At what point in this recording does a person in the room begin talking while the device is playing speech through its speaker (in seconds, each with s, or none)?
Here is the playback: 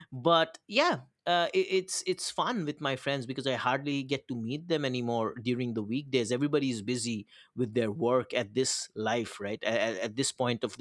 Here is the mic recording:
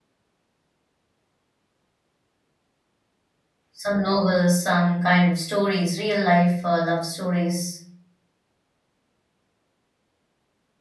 3.7 s